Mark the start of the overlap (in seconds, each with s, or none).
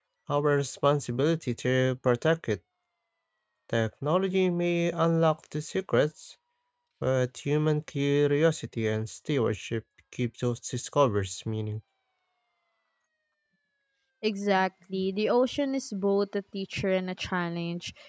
none